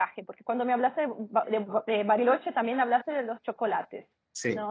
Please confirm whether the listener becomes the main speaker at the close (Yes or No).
No